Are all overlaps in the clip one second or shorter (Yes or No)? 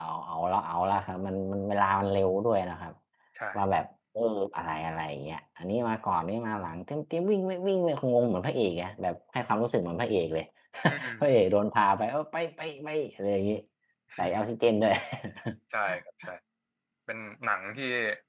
Yes